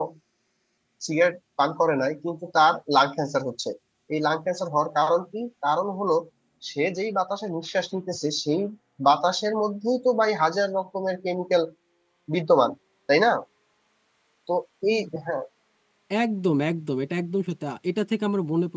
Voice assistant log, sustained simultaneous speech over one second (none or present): none